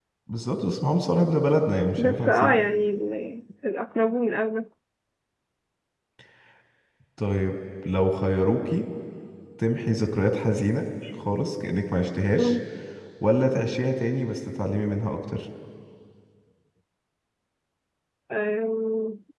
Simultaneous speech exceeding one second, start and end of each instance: none

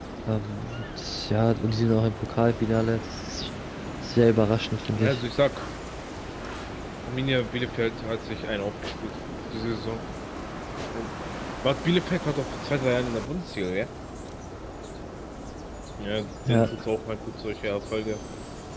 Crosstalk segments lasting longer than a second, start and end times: none

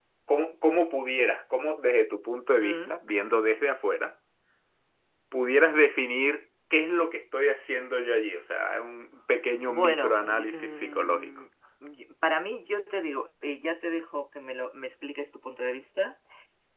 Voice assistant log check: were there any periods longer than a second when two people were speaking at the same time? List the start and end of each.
9.7-11.3

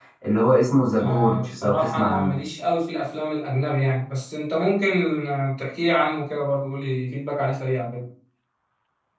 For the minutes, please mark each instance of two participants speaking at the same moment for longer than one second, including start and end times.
1.0-2.4

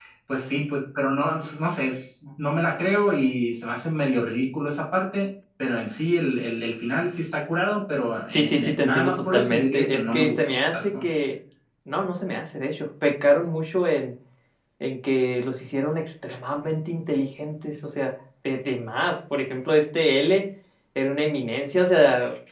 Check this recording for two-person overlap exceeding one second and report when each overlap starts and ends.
8.3-11.1

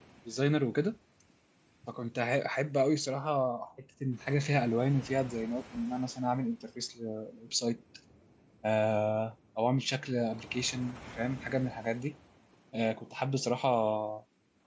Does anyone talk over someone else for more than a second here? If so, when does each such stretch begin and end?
none

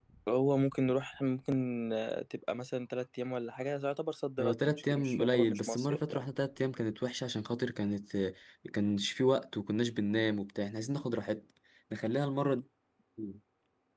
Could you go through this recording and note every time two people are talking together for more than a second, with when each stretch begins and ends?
4.4-6.2

